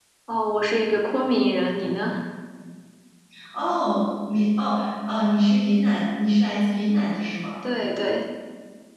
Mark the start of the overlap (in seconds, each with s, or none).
none